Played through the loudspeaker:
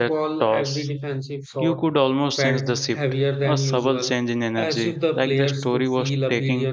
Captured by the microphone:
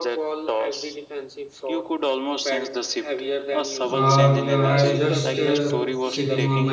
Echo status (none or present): present